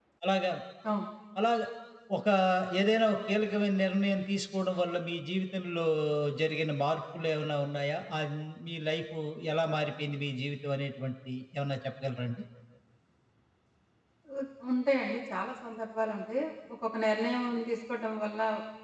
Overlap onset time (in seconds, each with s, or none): none